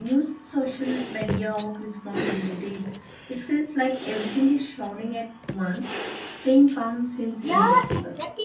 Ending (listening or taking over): taking over